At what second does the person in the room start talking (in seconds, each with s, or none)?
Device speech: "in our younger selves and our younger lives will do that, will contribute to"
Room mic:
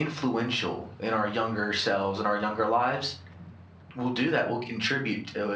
none